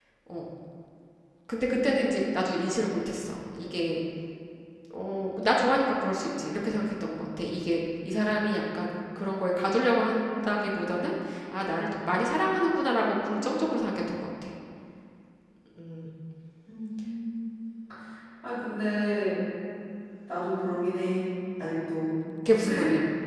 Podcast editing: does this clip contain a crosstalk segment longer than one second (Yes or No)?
No